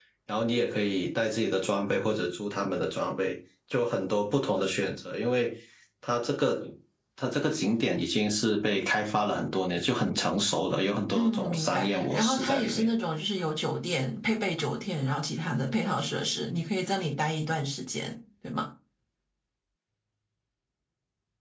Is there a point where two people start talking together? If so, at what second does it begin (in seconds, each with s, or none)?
11.1 s